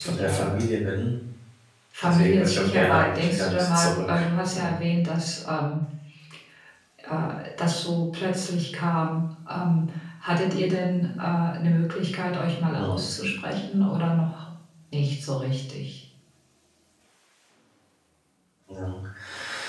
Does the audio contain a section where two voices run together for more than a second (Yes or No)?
Yes